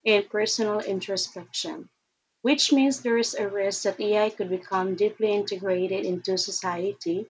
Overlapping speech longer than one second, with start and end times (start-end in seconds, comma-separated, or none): none